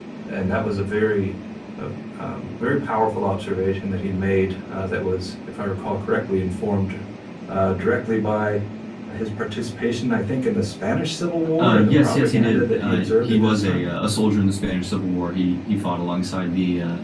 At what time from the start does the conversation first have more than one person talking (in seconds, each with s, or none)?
11.6 s